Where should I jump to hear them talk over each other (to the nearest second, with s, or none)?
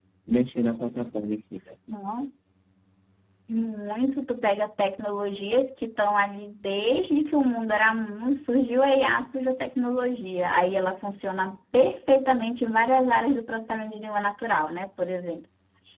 none